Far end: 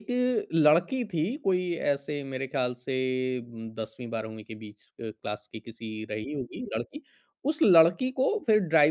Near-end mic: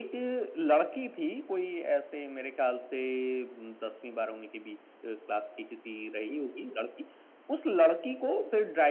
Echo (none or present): present